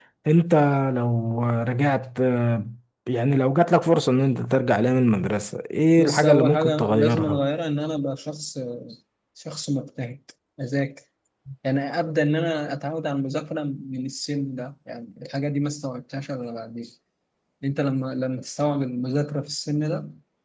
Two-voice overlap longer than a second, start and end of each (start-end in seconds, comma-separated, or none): 6.0-7.4